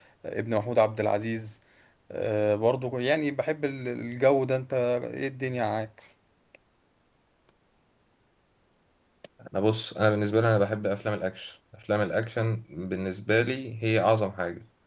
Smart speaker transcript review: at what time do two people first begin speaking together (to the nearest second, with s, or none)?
none